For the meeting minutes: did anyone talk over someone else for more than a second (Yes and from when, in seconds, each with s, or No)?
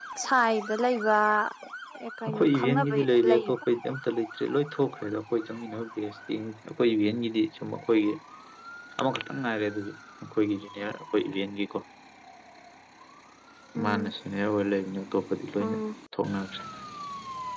Yes, from 2.3 s